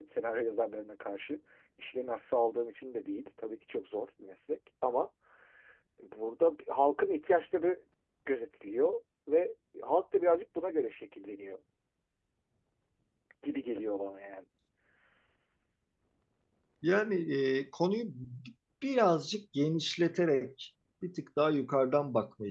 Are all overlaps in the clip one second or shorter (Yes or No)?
Yes